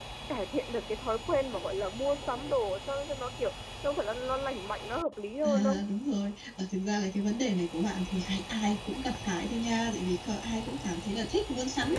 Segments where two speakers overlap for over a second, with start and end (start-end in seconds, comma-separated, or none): none